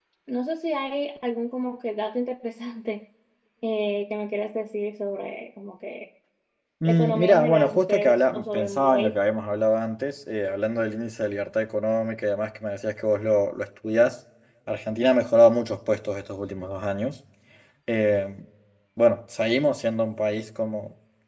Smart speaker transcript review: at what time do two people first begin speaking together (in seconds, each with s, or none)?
6.8 s